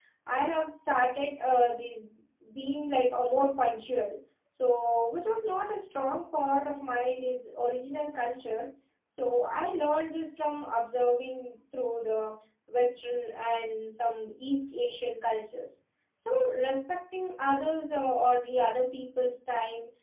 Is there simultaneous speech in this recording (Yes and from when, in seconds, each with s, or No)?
No